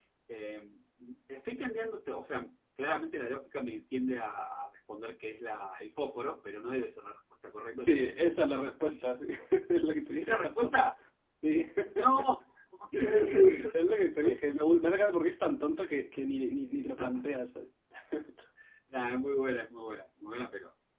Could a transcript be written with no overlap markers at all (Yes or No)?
No